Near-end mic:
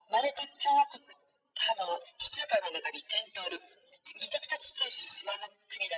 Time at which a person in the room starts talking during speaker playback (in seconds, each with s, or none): none